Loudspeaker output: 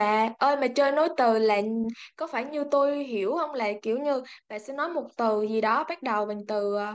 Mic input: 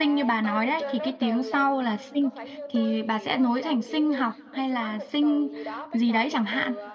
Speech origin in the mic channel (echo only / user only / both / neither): both